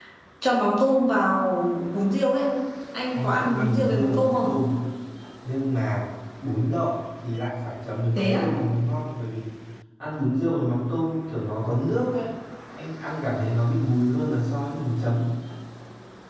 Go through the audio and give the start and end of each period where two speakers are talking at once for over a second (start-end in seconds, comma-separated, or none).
3.1-4.5